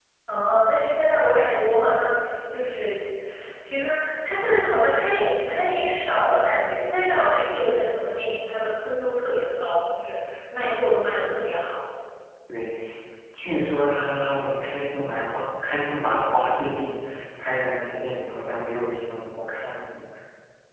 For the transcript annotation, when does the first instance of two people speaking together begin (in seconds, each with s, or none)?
none